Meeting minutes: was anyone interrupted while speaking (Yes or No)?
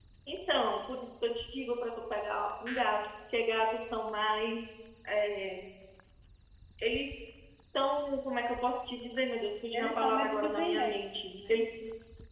Yes